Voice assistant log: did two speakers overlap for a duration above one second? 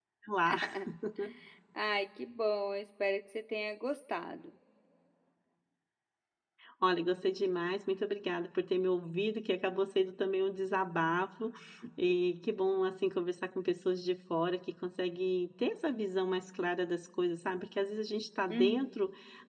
No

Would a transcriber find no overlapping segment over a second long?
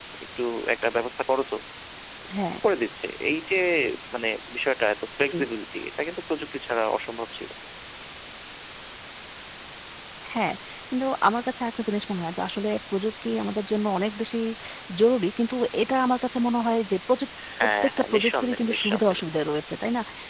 No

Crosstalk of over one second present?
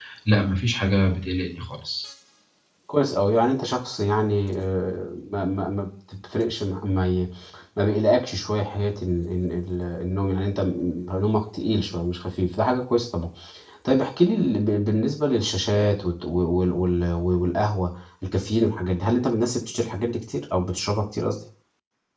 No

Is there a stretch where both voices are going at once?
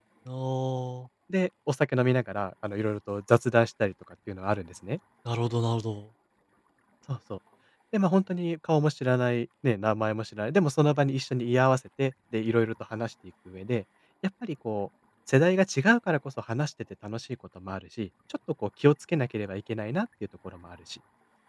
No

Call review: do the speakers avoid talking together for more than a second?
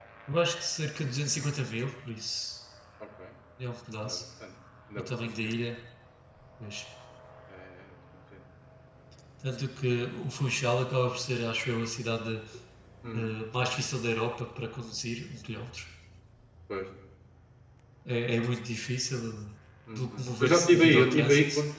No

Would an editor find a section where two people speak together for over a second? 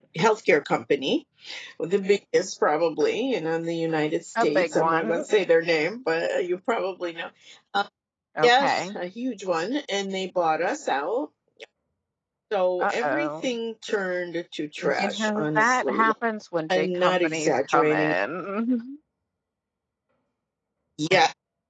Yes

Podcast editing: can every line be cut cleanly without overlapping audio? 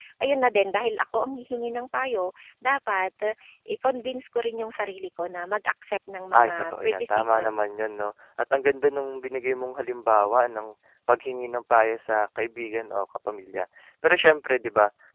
No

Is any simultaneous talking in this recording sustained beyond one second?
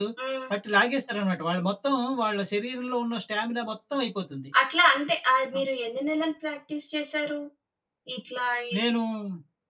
No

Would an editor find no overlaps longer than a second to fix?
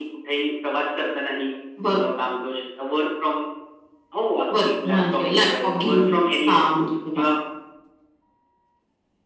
No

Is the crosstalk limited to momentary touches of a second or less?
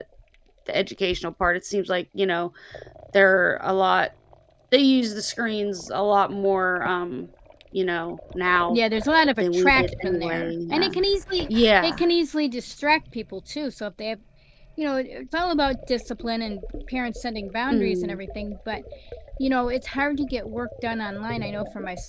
No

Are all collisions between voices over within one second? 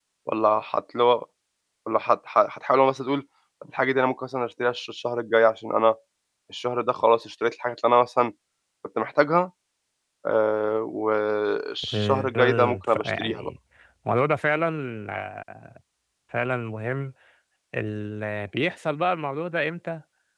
No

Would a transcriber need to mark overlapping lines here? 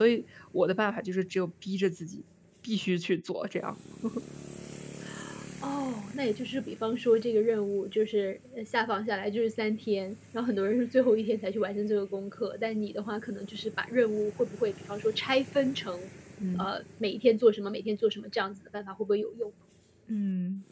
No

